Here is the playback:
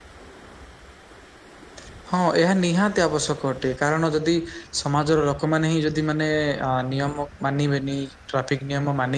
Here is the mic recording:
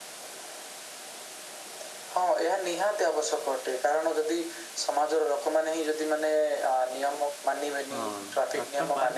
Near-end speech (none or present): present